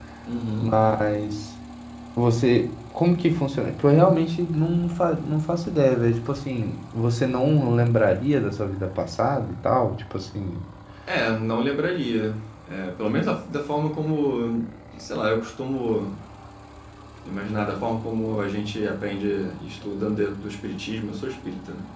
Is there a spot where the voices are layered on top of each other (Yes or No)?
No